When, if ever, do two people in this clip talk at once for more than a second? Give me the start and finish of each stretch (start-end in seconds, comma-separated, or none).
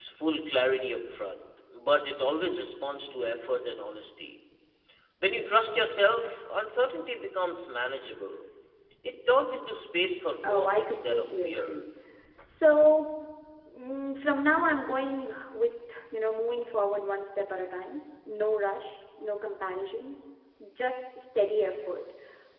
10.5-11.8